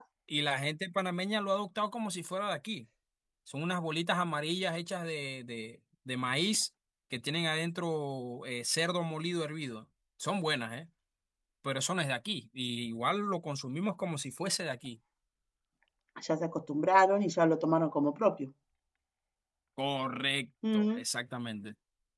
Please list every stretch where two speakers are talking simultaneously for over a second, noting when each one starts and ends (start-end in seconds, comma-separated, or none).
none